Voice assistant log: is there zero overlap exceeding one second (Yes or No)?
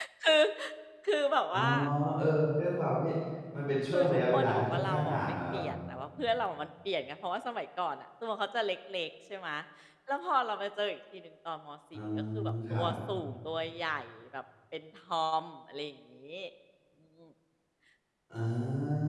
No